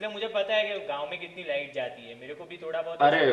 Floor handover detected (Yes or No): Yes